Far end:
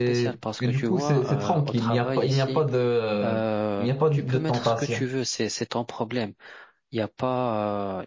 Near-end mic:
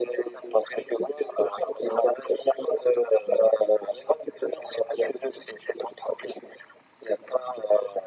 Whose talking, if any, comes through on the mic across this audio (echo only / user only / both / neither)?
echo only